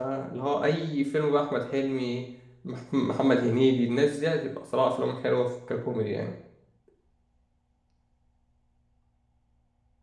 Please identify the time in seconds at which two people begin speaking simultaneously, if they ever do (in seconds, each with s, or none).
none